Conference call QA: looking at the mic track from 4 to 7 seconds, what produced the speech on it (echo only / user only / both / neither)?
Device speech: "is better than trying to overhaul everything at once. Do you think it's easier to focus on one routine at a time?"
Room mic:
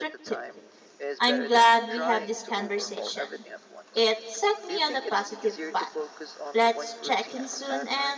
both